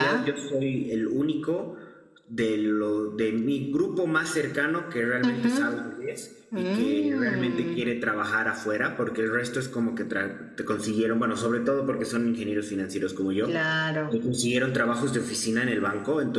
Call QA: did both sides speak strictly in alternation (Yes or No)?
No